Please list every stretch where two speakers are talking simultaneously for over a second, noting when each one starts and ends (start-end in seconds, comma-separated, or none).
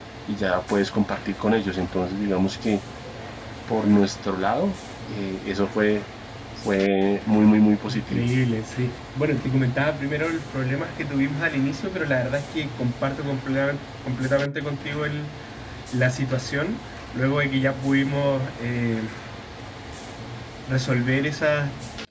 none